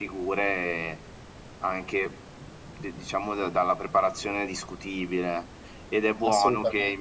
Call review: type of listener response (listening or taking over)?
listening